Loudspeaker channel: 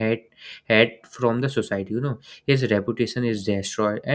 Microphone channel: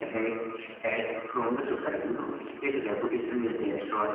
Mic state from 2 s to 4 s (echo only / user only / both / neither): echo only